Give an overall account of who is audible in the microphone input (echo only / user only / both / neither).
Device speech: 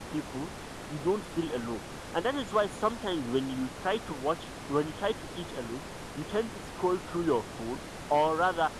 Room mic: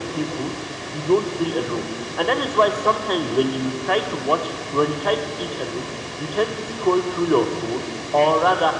echo only